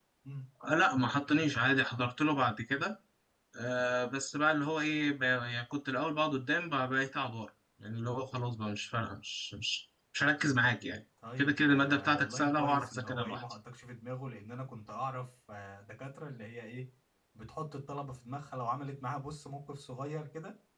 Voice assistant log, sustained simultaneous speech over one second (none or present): present